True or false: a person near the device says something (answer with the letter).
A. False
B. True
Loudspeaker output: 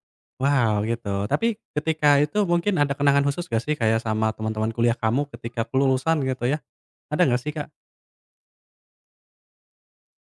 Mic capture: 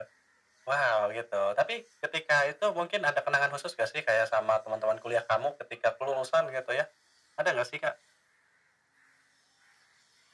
A